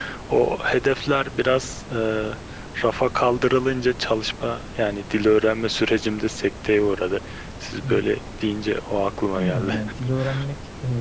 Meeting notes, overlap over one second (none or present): none